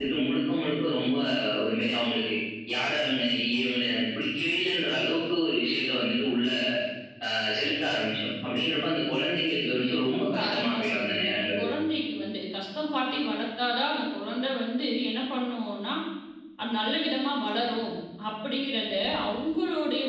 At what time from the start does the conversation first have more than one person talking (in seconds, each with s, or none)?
9.6 s